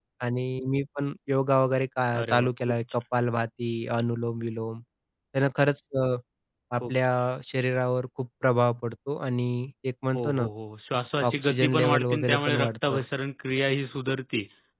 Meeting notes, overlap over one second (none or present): present